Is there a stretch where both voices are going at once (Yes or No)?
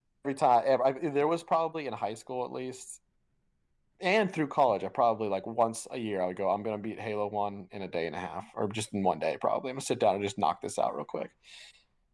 No